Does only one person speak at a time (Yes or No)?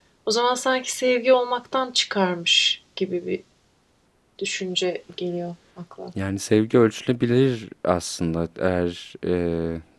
Yes